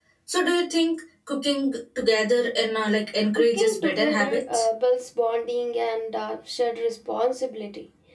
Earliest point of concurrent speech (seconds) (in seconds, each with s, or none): 3.4 s